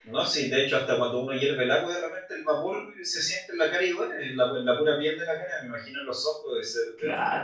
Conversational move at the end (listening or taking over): taking over